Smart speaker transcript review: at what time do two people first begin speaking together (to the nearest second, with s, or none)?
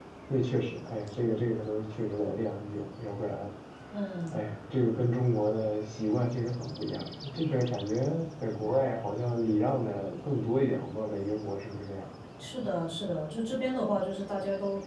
none